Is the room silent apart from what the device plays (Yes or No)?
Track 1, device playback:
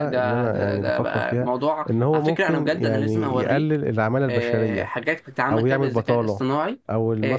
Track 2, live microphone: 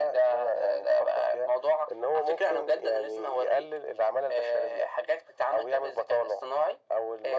Yes